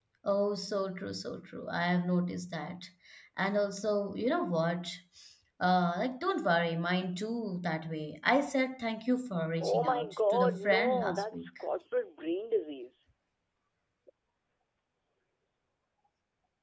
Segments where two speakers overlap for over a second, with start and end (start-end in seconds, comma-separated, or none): 9.6-11.5